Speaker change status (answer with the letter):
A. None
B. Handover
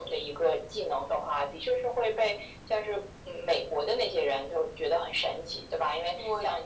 A